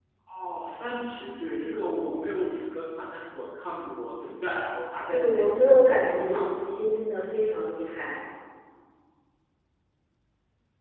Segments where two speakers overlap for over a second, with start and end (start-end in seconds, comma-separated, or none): 5.1-6.8